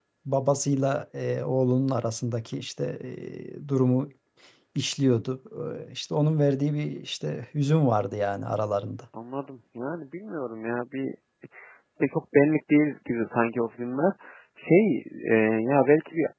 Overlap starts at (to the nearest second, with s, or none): none